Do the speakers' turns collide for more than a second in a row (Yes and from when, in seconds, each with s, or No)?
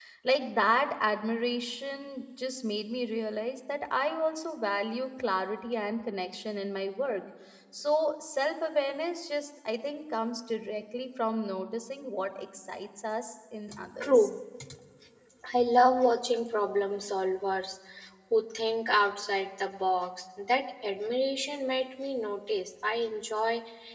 No